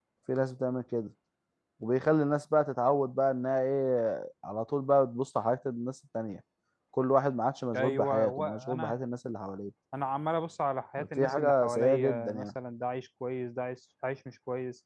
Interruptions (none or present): present